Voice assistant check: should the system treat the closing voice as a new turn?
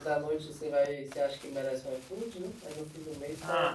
Yes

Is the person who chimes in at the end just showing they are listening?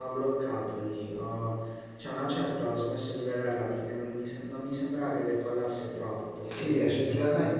No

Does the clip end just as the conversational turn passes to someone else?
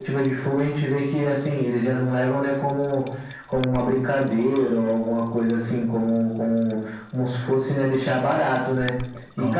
No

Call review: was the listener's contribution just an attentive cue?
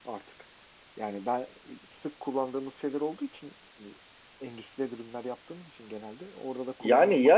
No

